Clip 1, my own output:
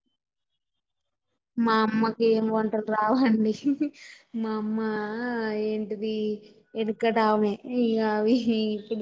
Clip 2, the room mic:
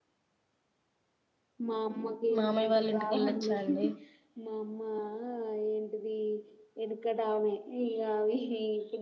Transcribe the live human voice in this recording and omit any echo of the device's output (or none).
మామయ్య వాళ్ళ ఇంటికి వెళ్ళొచ్చా అండి